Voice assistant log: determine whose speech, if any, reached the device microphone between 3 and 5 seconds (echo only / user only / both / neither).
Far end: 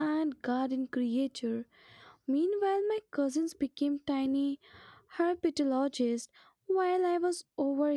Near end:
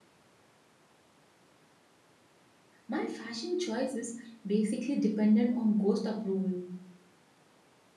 user only